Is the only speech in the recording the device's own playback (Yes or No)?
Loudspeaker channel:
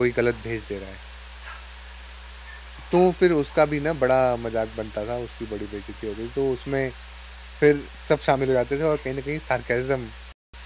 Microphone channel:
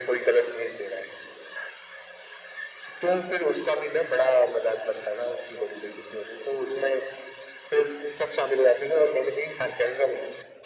Yes